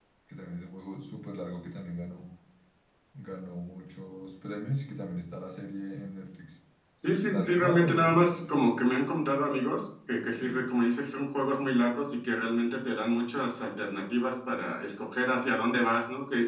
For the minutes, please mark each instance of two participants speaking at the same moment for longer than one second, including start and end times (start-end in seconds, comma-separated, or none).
7.3-8.8